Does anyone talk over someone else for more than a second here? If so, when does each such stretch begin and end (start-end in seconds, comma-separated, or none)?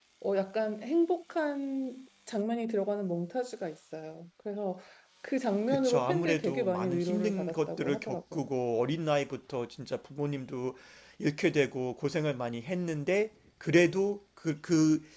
5.7-8.4